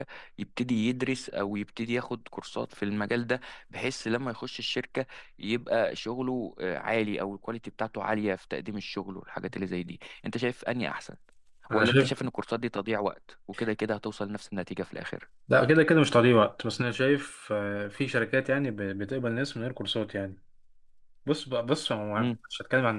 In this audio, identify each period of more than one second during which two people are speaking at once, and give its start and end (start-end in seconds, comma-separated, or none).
none